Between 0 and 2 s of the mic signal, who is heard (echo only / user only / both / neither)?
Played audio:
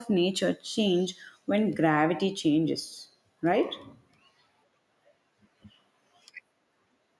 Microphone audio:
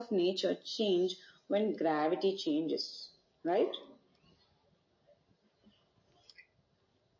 echo only